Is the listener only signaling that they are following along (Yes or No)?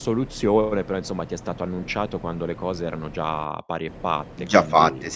No